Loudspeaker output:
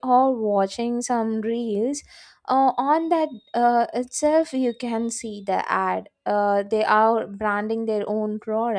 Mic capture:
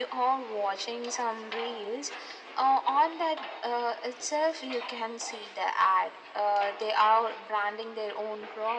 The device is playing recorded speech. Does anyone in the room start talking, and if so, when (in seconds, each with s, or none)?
none